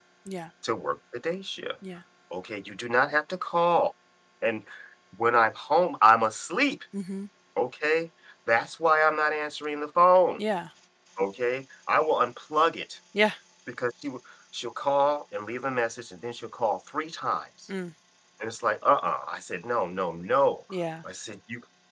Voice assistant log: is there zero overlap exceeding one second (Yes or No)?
Yes